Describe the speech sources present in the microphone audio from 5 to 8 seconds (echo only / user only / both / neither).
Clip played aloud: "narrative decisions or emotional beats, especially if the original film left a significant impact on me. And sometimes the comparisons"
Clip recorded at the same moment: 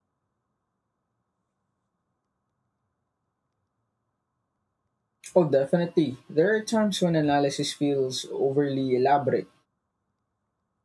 user only